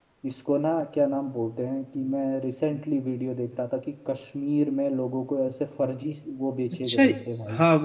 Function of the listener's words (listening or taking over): taking over